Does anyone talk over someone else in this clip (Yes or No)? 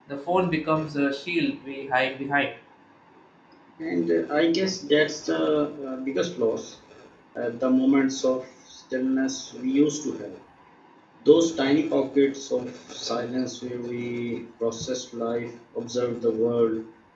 No